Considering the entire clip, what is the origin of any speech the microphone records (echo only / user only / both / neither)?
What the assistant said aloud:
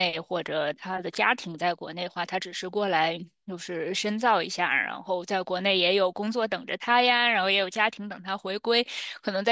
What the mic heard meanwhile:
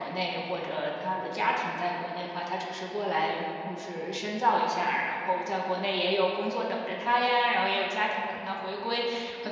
echo only